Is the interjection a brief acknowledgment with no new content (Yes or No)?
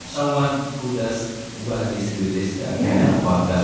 Yes